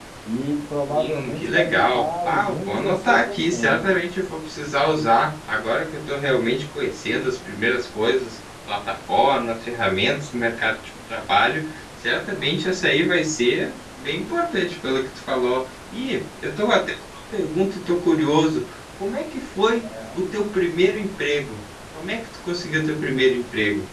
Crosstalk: present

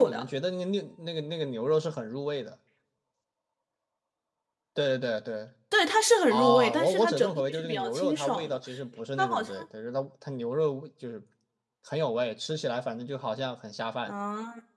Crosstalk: present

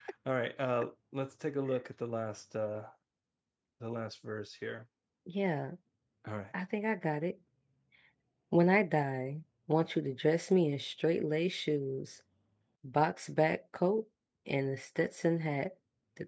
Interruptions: none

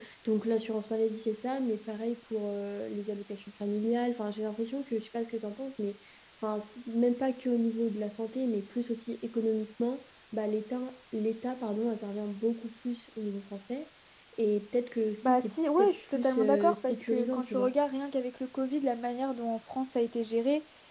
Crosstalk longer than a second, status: present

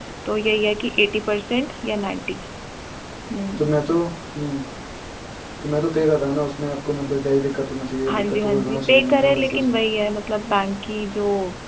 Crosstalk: present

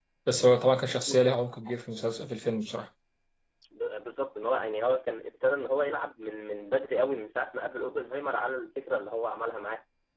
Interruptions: none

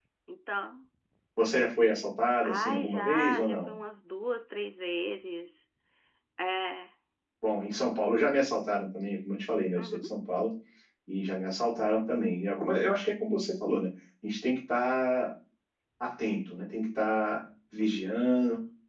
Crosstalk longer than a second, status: present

